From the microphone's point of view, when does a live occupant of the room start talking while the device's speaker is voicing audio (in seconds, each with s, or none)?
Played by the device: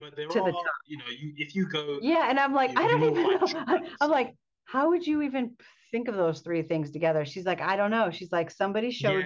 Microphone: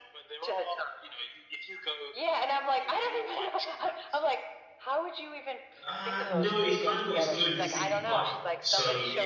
5.8 s